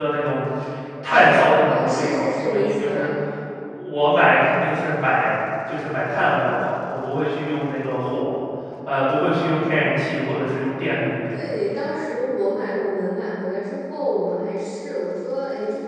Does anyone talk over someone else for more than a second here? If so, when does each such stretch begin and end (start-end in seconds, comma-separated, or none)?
1.6-3.1